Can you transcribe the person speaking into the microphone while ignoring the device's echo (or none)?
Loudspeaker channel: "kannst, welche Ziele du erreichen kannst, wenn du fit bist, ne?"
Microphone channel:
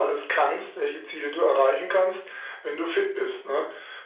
none